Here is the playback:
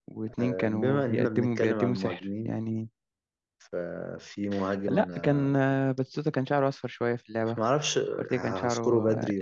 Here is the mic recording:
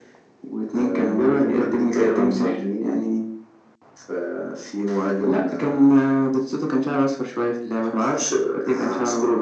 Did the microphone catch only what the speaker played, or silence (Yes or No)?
Yes